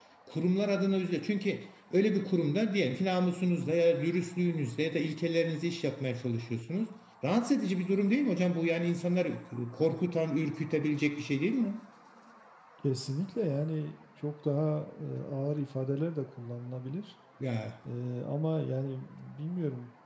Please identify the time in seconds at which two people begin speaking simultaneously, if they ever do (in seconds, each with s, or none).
none